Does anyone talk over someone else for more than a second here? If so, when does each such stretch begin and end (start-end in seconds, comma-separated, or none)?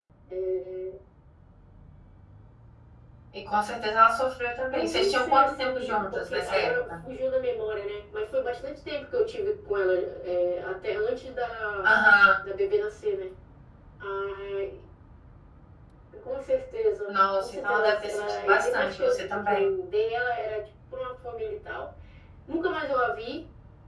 4.7-6.9, 17.1-19.8